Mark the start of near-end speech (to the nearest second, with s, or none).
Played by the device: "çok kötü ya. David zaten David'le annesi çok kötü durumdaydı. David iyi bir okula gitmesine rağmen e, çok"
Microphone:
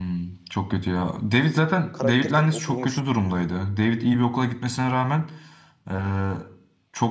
2 s